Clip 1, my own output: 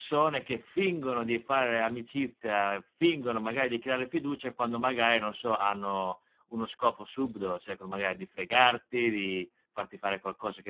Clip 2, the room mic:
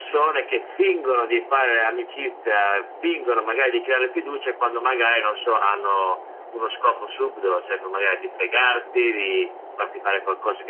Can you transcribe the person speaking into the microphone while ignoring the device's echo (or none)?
none